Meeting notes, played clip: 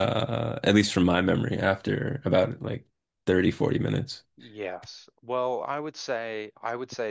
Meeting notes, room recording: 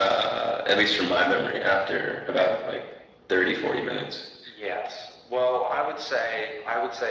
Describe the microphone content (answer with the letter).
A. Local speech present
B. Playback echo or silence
B